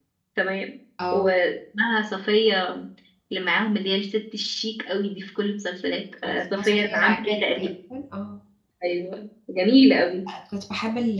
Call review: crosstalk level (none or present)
present